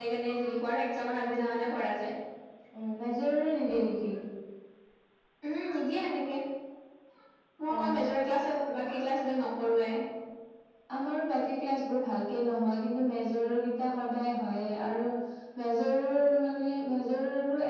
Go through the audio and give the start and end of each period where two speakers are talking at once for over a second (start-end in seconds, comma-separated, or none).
none